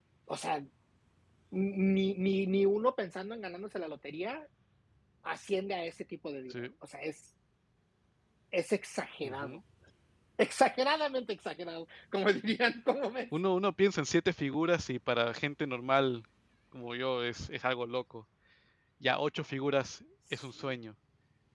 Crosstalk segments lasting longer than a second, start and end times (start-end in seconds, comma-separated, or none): none